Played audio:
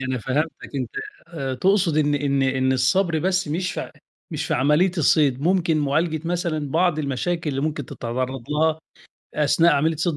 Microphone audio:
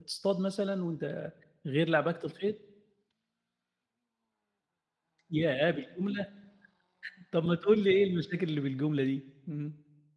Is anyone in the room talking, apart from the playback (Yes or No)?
Yes